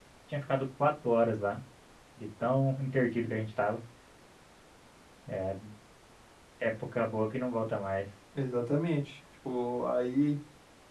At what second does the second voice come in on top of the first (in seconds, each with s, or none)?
none